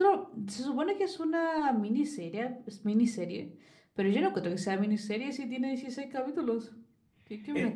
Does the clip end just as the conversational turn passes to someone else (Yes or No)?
Yes